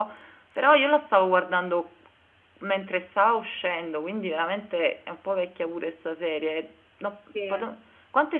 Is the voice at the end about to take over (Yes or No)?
No